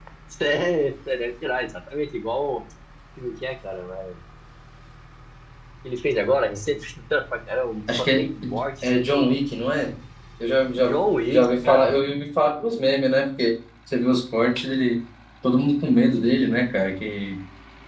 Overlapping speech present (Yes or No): Yes